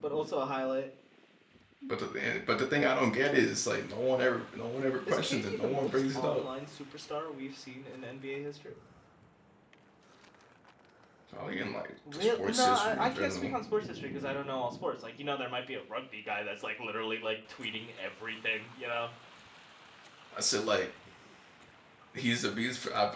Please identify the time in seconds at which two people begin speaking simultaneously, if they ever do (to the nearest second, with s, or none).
5 s